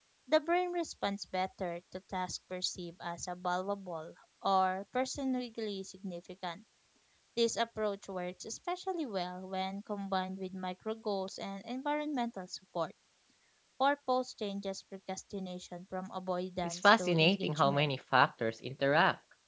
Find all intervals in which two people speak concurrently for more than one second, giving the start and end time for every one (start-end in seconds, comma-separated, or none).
16.6-17.9